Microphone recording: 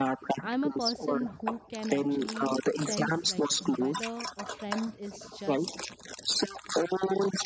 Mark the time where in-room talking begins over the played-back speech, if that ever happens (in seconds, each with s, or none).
0.4 s